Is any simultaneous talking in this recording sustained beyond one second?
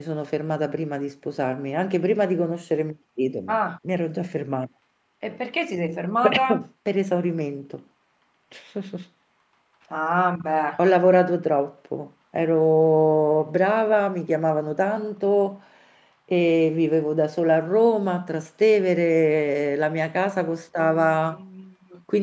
No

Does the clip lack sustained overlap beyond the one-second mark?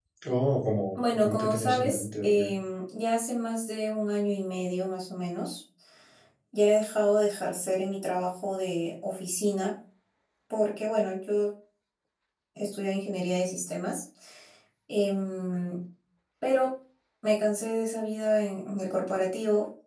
No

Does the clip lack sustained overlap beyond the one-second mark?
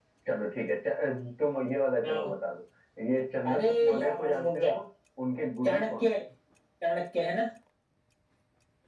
No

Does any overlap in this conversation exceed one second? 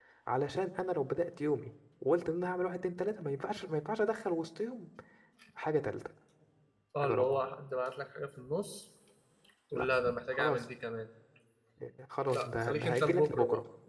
Yes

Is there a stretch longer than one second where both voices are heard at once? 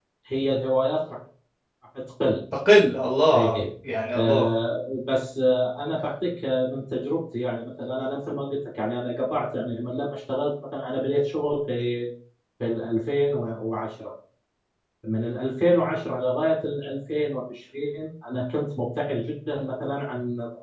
No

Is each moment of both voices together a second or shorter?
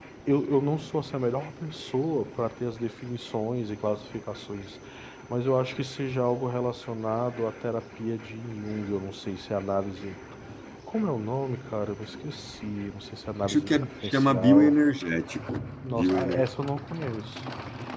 No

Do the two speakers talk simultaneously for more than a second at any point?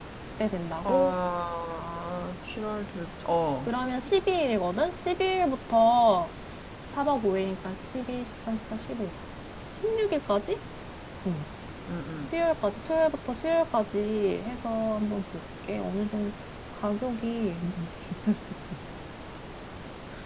No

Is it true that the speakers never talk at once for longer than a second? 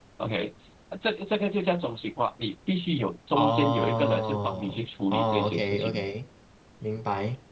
No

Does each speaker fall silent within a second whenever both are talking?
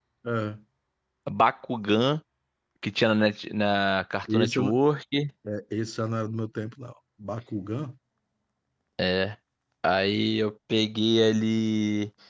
Yes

